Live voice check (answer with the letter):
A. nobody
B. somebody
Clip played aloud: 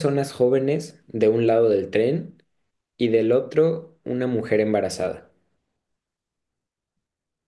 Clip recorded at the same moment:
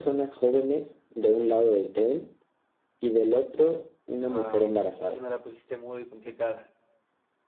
B